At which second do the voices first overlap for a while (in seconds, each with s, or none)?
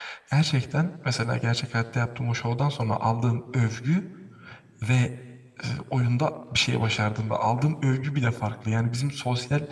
none